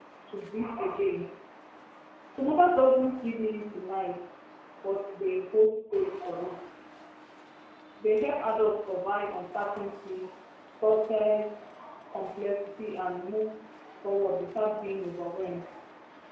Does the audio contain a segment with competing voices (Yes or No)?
No